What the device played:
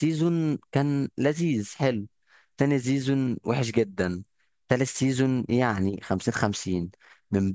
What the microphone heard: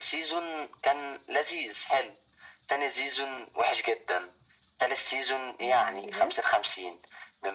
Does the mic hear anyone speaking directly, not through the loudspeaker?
Yes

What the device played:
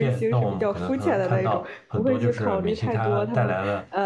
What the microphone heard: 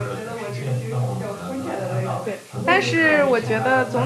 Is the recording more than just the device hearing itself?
Yes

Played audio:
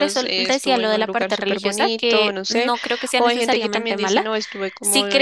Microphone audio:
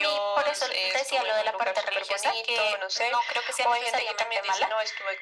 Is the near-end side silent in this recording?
Yes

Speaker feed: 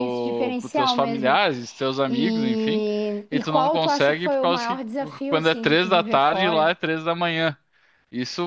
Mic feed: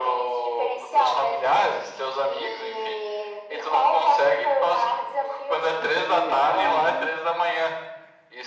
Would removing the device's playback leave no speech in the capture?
No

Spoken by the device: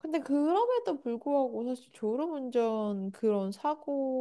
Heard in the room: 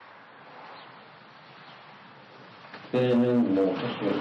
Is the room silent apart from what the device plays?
No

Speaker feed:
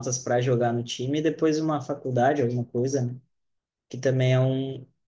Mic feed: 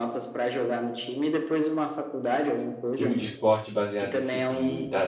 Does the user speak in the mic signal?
Yes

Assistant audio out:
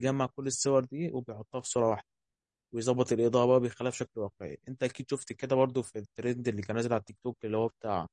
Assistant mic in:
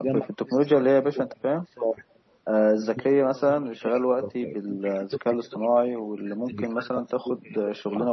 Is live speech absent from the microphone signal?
No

